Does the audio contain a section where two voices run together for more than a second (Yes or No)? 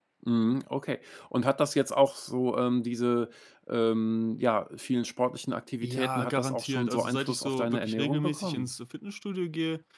Yes